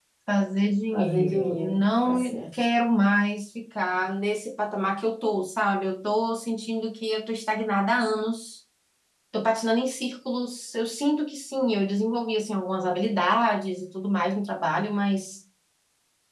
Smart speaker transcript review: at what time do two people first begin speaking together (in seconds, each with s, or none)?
0.9 s